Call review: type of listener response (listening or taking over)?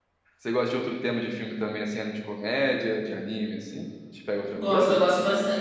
taking over